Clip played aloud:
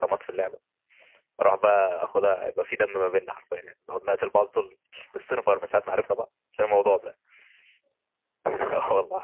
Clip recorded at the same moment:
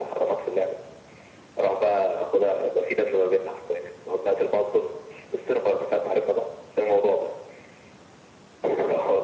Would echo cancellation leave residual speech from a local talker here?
No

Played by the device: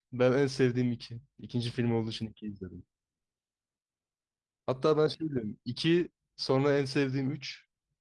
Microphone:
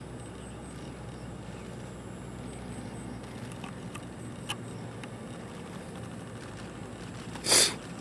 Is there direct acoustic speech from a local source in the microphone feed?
No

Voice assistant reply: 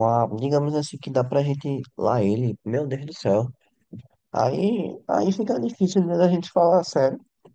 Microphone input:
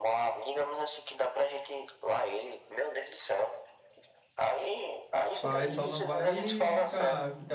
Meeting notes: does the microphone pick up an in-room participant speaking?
Yes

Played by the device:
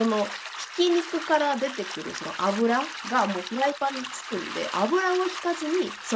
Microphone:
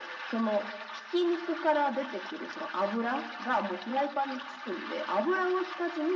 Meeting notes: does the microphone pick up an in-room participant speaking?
No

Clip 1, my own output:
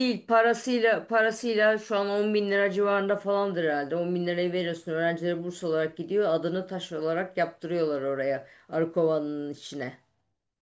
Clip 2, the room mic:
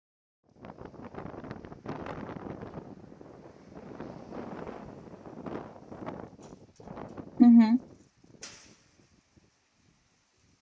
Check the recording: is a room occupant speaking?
Yes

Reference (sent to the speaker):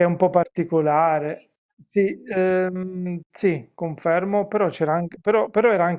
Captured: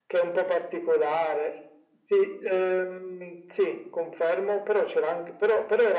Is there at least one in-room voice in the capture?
No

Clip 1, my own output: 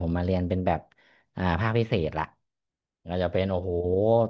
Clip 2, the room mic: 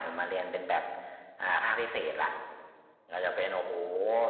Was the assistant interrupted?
No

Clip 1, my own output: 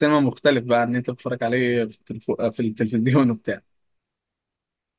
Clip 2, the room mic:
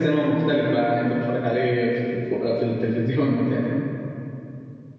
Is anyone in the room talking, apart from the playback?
No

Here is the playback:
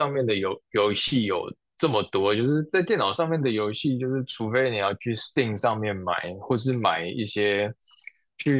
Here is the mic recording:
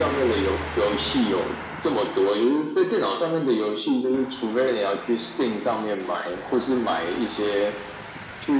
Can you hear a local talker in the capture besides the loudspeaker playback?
No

